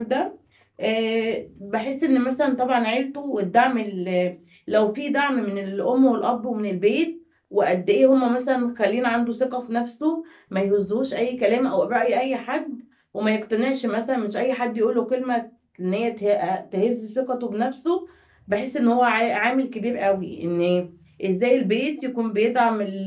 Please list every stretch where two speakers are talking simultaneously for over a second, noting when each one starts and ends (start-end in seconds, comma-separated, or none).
none